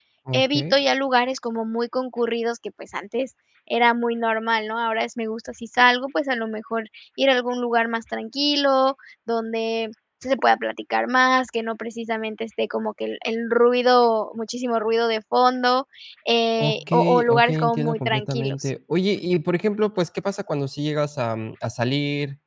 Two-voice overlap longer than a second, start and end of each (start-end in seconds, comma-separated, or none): 16.6-18.6